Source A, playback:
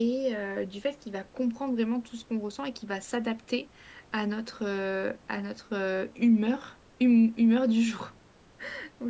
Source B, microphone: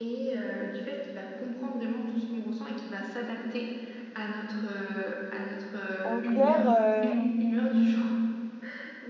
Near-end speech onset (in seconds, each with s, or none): 6.0 s